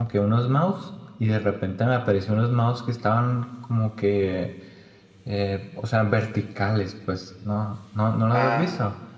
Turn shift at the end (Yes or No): Yes